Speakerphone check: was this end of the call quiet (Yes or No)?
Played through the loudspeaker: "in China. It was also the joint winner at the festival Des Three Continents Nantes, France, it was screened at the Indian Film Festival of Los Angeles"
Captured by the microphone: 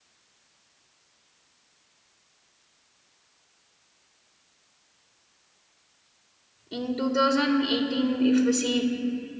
No